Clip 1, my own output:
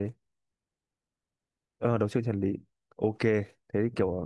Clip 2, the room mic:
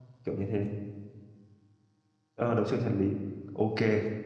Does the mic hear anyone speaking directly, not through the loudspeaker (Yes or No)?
No